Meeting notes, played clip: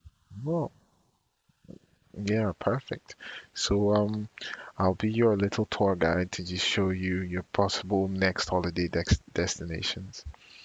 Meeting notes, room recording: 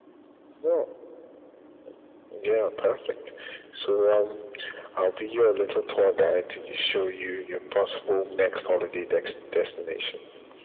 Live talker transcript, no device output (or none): none